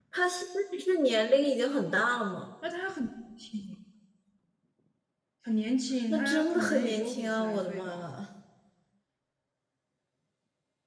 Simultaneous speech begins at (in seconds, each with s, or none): 6.1 s